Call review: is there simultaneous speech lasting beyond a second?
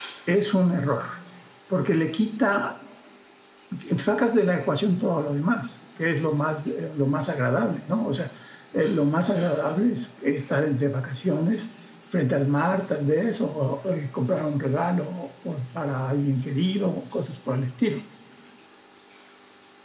No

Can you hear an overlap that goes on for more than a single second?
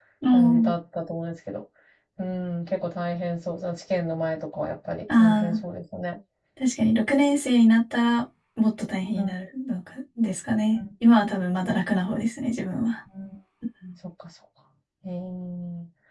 No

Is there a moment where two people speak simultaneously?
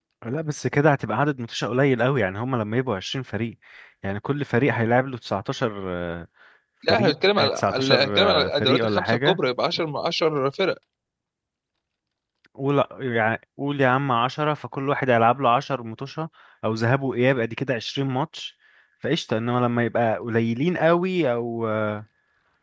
Yes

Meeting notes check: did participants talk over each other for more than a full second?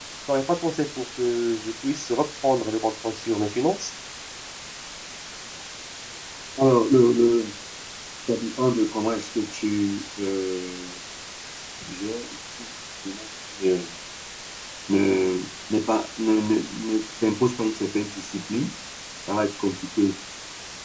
No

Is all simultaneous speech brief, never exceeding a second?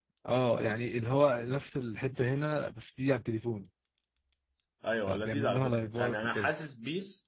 No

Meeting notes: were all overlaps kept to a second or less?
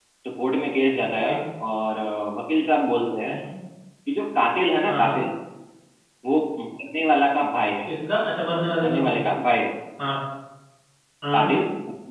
Yes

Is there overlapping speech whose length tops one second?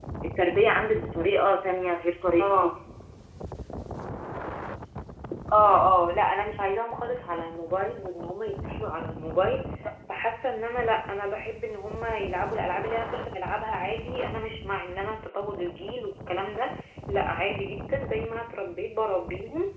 No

